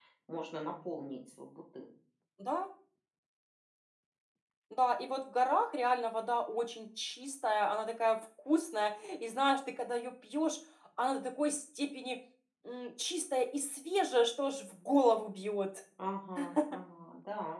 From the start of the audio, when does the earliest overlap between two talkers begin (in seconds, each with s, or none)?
none